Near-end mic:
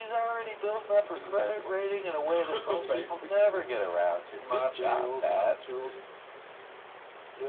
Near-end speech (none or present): none